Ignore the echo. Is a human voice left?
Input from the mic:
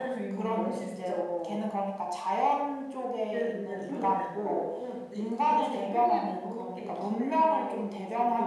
No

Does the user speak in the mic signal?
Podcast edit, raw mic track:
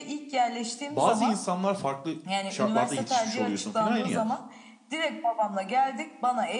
Yes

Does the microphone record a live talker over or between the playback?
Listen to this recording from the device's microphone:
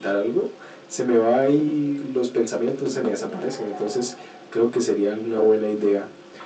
Yes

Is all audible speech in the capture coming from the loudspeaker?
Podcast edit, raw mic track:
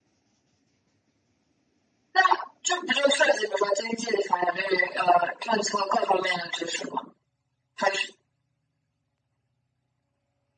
Yes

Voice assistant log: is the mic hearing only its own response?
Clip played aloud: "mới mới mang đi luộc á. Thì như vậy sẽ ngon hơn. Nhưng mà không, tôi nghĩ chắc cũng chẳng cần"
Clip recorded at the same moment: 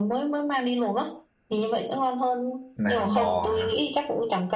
No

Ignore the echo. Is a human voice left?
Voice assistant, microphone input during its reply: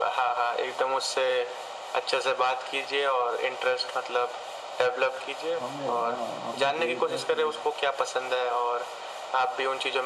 Yes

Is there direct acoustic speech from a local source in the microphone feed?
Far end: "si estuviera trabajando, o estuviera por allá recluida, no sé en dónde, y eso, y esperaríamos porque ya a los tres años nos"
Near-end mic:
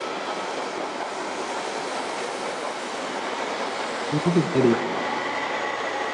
Yes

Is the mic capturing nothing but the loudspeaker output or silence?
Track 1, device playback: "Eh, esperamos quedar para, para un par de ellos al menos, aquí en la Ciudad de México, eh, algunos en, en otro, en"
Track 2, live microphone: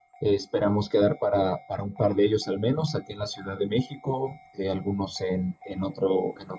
Yes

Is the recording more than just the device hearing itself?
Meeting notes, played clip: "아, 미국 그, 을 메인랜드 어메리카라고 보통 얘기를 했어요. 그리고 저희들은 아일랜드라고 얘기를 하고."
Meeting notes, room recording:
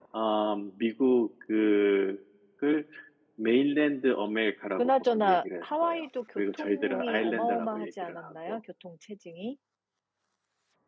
Yes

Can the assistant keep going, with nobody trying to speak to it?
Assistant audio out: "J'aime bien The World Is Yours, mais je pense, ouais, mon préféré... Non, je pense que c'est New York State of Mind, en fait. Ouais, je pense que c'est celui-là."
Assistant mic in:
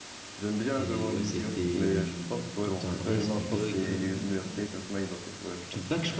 No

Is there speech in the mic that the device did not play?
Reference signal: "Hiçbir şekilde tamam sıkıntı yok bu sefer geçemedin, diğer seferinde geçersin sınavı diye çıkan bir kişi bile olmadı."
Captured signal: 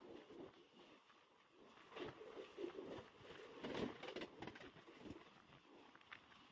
No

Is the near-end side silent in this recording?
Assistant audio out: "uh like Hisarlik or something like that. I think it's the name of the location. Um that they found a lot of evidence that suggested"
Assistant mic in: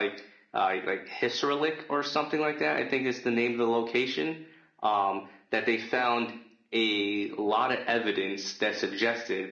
Yes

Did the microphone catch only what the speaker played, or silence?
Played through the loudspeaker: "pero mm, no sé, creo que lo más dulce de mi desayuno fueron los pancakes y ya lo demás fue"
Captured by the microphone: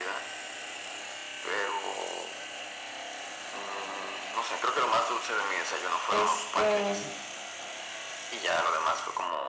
No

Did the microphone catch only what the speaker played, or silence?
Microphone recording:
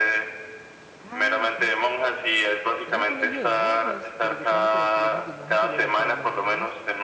No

